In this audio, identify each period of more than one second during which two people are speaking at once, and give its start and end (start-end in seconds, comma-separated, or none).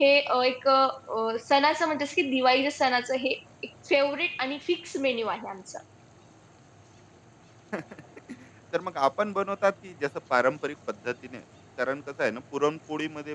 none